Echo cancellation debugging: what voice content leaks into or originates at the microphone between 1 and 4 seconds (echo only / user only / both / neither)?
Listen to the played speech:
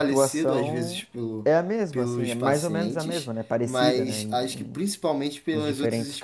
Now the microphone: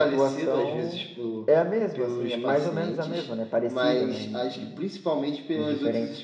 echo only